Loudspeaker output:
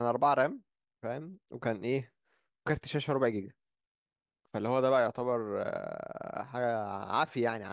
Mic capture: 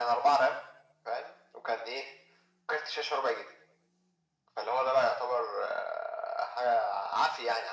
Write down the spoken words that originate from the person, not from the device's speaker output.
none

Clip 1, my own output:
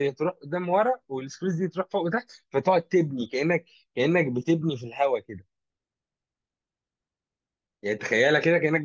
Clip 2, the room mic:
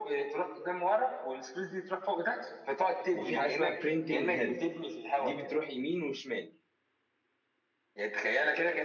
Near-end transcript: وفي حاجه اسمها برينتنج هيد دي بتروح يمين وشمال

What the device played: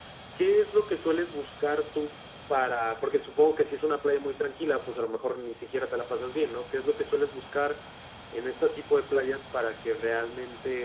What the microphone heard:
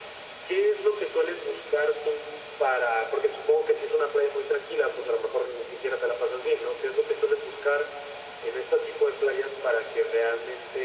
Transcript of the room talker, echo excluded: none

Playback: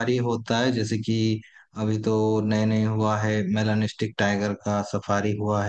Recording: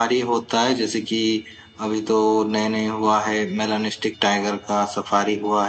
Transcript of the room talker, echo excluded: none

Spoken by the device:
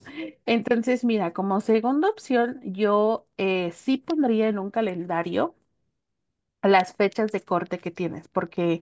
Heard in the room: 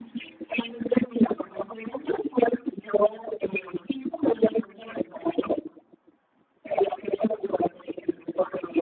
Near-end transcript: none

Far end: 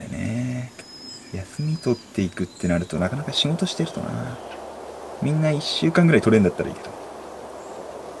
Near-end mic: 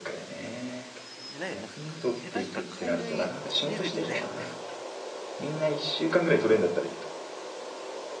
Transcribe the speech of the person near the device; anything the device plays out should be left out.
じゃないよ。なんか、か下手したら海外レベルだよね。

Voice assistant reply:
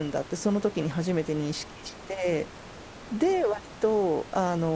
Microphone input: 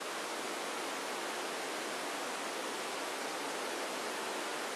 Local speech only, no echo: none

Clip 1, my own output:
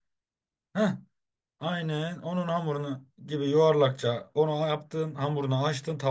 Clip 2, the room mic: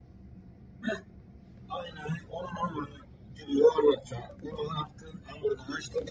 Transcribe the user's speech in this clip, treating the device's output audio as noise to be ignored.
none

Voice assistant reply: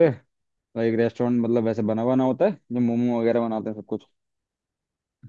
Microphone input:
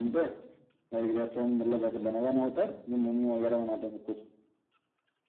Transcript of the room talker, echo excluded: none

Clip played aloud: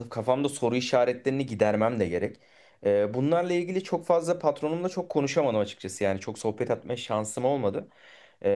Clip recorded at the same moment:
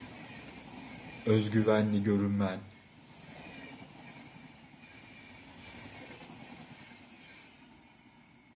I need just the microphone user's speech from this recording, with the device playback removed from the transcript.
özgüvenli görünmen

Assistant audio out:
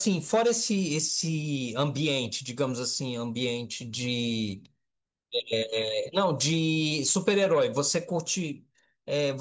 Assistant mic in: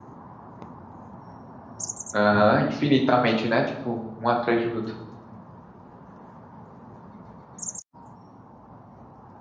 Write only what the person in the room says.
aham, infinitamente, né? Tipo, um atrás do outro.

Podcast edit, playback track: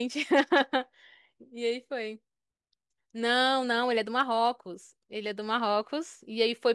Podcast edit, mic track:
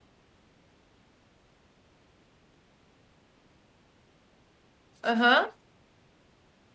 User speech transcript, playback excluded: Aham.

